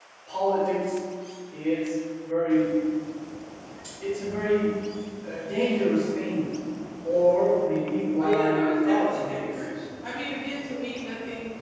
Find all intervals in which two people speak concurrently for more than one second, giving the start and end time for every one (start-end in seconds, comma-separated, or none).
8.2-9.6